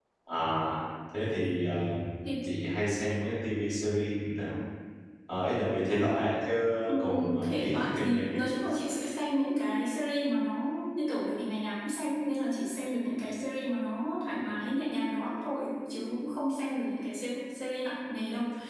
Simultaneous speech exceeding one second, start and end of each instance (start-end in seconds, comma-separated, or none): 7.0-8.5